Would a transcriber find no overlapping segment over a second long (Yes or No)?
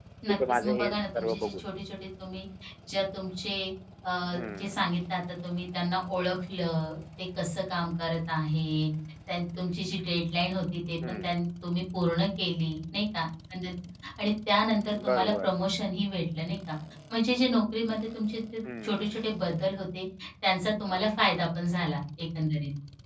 No